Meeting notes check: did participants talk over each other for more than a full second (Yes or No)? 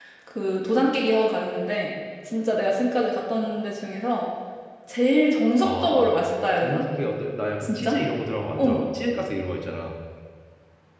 No